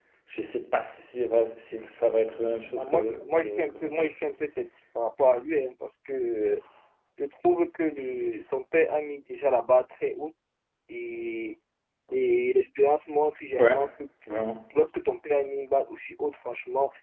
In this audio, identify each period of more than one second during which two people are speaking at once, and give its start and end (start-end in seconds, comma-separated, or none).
2.8-4.1